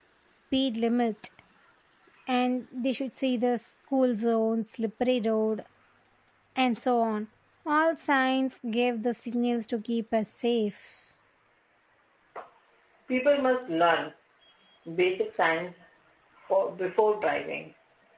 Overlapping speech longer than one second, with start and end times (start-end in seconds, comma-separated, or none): none